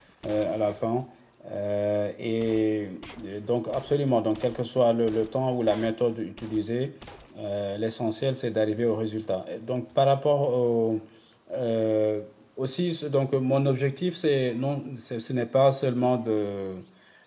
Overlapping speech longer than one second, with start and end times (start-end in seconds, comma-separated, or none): none